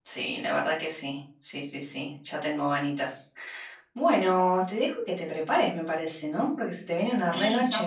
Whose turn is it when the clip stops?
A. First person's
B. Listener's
B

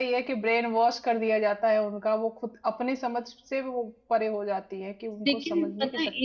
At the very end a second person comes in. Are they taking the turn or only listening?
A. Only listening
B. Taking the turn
B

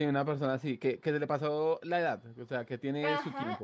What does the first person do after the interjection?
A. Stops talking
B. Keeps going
A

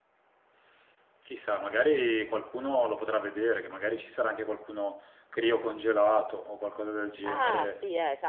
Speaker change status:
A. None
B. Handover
B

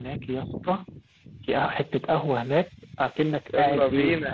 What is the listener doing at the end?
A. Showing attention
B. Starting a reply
A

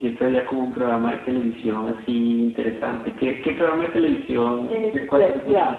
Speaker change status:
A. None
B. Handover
B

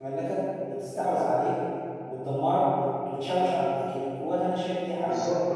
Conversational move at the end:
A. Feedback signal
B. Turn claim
B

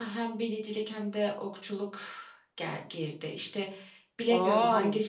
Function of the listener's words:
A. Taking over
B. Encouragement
B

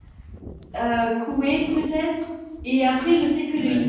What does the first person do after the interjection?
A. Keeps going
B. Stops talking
A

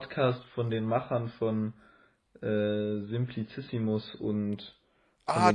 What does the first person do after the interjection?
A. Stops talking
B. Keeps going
A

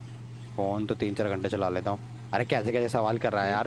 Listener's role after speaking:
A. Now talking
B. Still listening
B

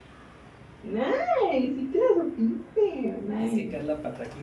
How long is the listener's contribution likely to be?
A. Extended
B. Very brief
A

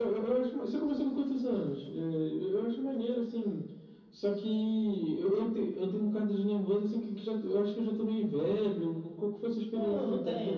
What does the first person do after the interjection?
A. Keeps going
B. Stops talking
B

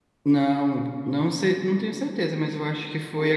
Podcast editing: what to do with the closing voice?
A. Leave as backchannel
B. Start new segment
A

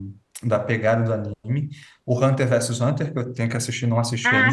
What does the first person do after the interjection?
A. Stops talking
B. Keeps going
B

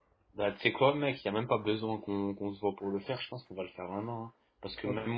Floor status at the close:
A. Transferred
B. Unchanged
B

